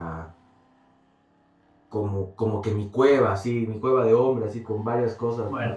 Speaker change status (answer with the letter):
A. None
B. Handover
A